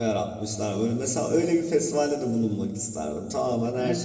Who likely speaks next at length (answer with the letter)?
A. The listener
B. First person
A